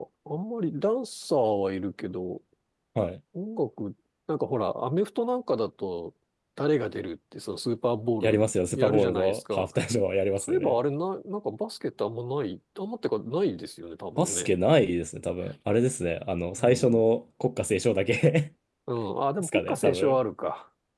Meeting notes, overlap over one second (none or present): present